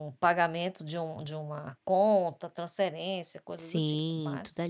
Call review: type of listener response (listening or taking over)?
taking over